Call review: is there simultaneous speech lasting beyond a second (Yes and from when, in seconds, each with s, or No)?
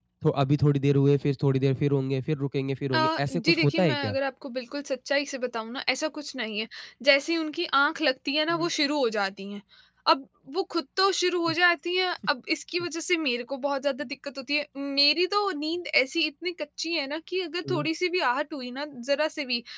Yes, from 2.9 s